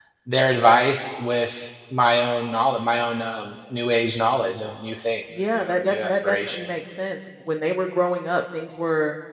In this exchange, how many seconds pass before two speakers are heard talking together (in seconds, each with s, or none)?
5.3 s